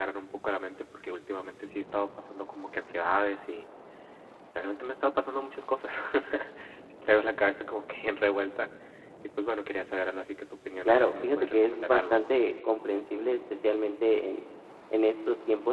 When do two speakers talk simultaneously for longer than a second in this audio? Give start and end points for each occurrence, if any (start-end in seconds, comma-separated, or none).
10.8-12.2